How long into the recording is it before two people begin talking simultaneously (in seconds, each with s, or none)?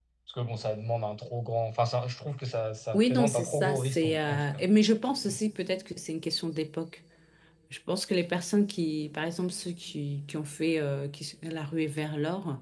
2.9 s